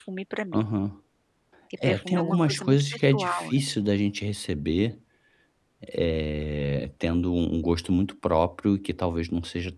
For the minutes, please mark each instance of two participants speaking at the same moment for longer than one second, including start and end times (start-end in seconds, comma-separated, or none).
1.9-3.6